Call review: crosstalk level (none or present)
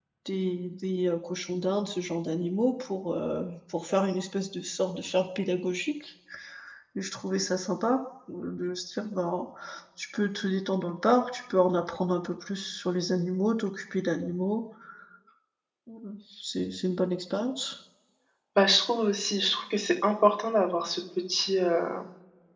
none